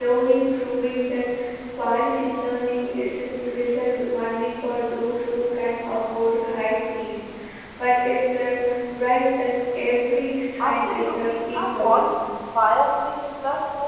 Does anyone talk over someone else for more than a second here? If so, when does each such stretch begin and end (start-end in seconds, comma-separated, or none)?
10.6-12.1